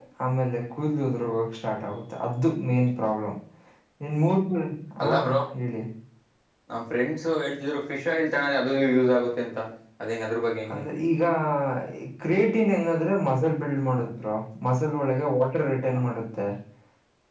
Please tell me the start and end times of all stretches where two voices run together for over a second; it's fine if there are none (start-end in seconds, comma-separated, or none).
none